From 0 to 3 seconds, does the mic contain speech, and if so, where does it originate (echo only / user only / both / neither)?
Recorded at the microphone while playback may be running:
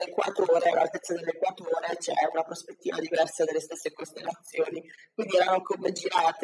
echo only